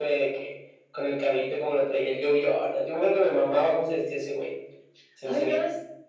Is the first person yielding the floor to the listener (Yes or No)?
Yes